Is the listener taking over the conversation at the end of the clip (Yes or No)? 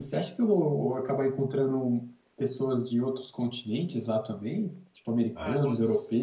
Yes